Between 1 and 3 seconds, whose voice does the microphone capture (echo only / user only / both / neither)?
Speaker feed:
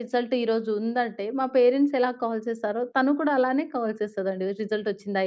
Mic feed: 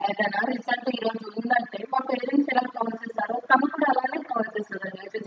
echo only